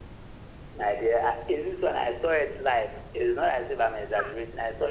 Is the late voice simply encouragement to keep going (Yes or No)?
Yes